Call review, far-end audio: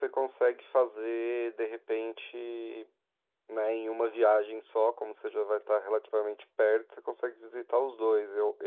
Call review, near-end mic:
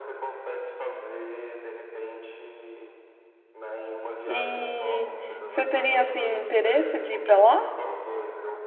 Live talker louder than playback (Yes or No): Yes